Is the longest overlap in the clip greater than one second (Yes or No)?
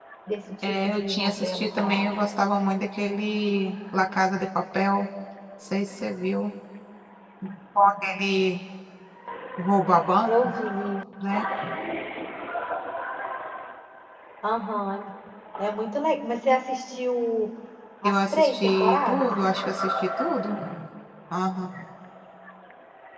Yes